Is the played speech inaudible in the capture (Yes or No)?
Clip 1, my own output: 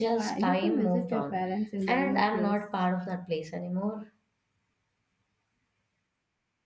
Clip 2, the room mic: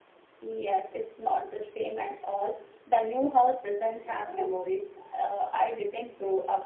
Yes